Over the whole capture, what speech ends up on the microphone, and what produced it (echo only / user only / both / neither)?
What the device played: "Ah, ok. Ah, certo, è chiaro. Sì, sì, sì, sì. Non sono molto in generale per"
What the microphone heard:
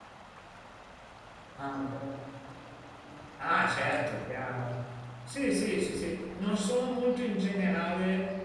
echo only